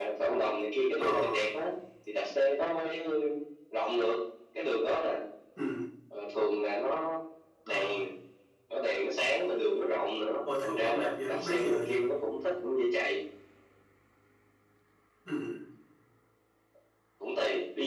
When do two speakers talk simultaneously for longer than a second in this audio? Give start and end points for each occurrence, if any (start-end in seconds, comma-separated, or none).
10.6-11.9